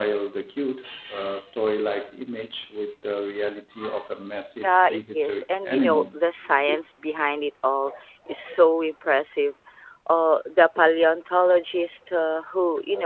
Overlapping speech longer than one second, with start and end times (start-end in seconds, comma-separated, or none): 4.6-6.1